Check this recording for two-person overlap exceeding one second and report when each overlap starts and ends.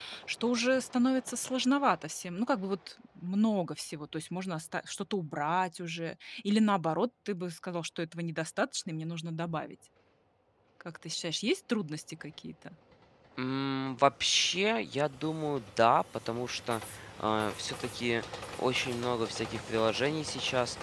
none

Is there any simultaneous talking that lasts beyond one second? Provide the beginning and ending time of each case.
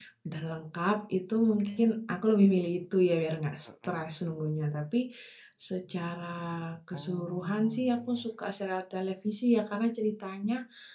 6.9-8.3

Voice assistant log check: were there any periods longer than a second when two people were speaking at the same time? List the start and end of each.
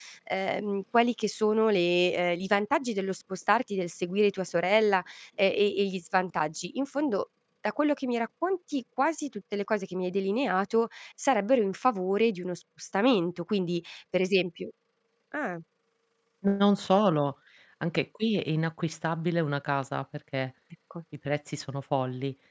none

